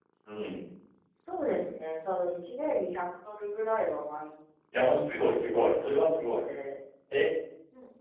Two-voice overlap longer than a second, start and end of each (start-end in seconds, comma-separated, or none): 4.9-6.2